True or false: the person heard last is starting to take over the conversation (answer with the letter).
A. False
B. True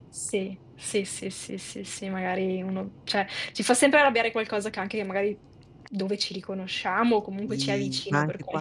B